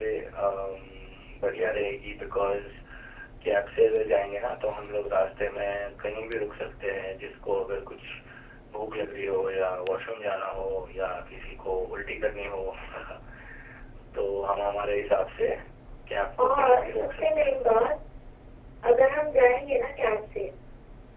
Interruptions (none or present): present